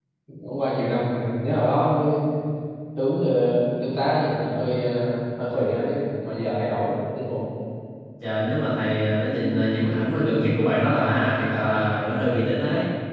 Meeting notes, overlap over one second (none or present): none